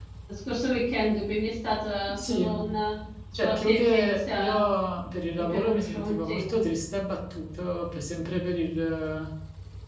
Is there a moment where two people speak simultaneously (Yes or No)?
Yes